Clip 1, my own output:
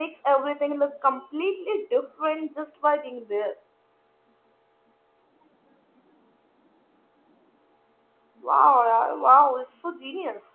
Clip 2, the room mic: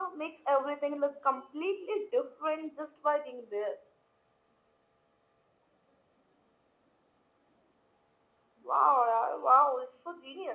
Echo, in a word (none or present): present